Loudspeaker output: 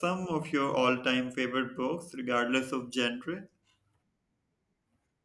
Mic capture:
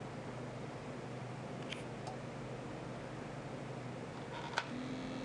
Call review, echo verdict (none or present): none